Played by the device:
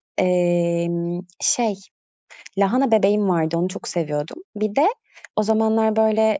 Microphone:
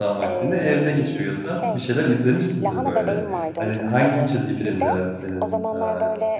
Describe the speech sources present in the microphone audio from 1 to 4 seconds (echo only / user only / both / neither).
both